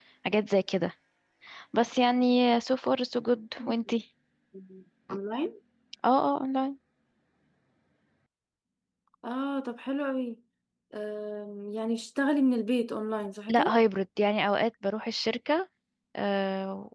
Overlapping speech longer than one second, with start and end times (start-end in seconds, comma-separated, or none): none